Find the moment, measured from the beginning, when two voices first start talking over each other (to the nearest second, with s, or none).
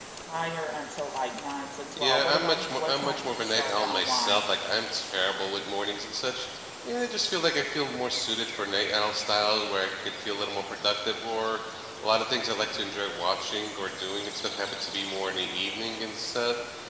2 s